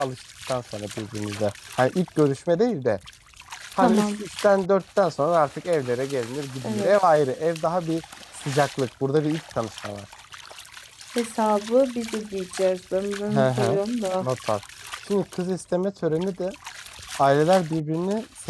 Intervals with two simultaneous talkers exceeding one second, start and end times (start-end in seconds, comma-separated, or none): none